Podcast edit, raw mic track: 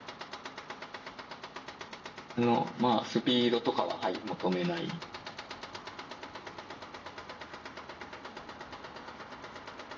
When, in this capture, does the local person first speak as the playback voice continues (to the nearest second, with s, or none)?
2 s